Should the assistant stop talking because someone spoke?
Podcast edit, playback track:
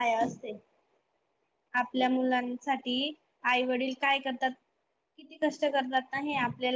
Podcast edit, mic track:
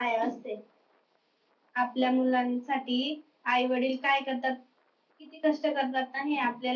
No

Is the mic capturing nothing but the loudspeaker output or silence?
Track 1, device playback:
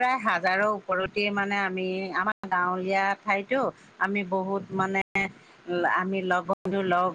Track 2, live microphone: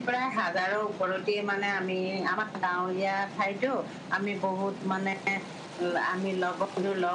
Yes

